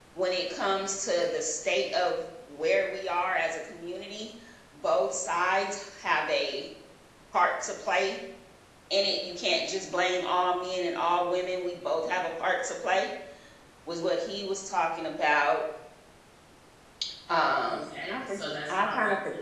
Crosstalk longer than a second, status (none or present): present